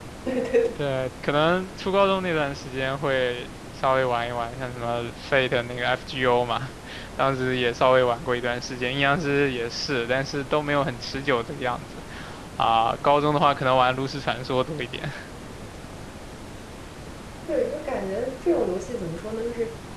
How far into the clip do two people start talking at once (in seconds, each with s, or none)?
none